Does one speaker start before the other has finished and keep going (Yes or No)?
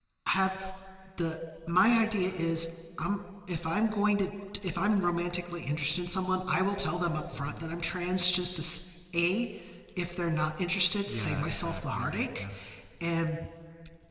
Yes